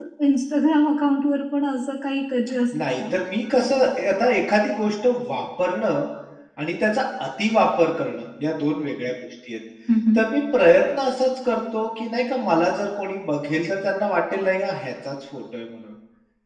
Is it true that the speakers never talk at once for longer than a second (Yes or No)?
Yes